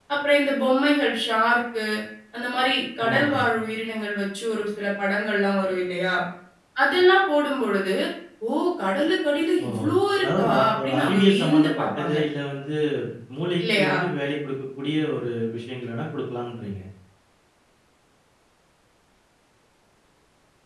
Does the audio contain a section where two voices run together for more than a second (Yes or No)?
Yes